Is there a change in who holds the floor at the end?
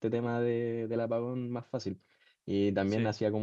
No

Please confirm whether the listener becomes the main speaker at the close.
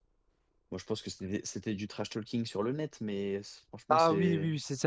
Yes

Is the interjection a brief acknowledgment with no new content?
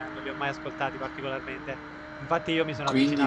Yes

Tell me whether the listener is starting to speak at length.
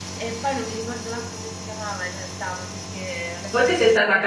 Yes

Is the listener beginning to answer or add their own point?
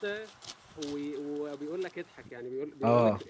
No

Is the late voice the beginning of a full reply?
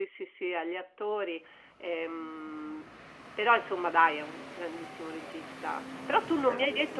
No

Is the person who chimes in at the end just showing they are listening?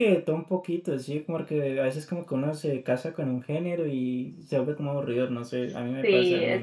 No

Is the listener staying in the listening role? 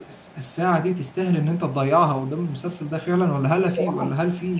Yes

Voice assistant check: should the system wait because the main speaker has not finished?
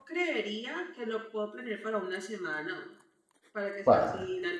Yes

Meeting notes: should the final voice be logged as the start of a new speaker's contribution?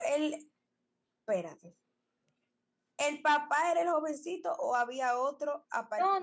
Yes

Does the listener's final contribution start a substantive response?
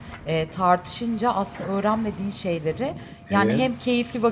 No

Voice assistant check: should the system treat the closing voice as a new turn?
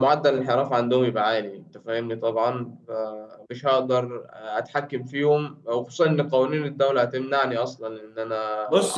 Yes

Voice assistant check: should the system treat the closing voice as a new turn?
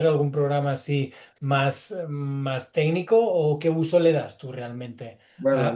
Yes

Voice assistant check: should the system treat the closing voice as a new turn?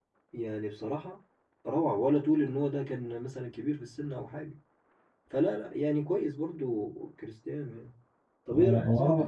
Yes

